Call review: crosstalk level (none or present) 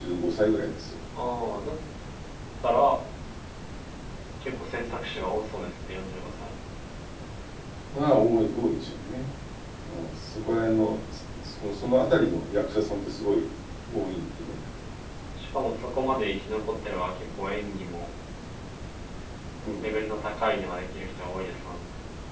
none